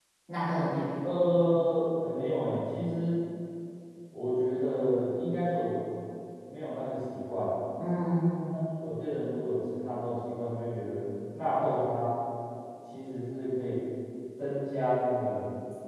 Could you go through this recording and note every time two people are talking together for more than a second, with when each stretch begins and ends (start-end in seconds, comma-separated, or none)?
none